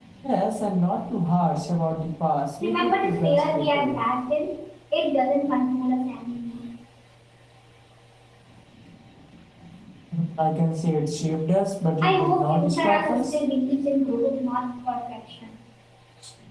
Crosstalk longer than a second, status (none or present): present